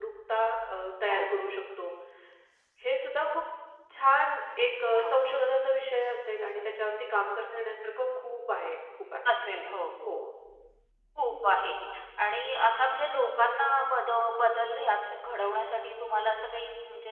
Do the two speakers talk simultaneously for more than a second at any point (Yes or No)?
No